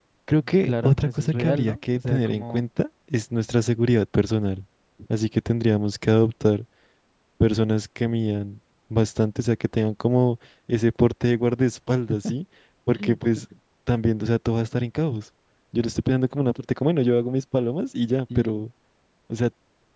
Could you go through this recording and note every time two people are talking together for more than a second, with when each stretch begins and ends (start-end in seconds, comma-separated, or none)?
0.6-2.6